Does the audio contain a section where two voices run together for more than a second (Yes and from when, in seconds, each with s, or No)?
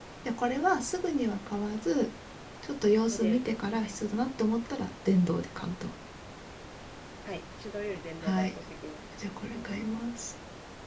No